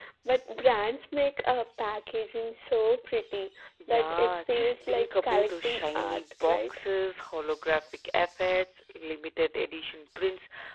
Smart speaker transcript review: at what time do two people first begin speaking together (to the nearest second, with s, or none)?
4 s